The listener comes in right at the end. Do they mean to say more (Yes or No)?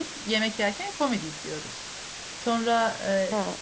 No